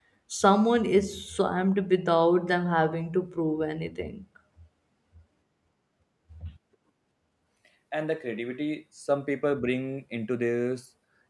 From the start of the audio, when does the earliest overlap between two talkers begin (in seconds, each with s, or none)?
none